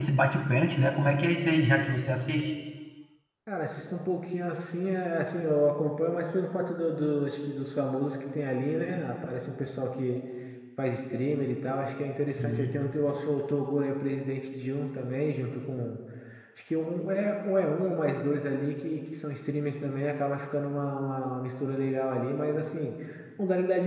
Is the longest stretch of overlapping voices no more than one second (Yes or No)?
Yes